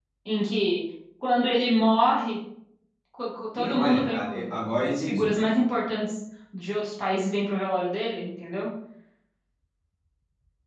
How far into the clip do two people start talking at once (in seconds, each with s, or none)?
3.5 s